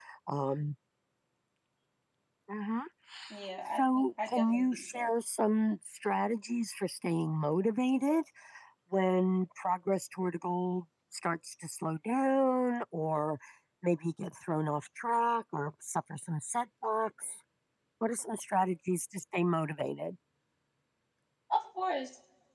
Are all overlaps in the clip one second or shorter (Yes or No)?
No